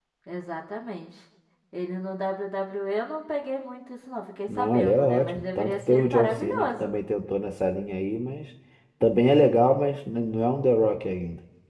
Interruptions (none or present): present